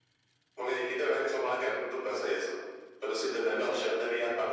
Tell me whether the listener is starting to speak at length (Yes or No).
No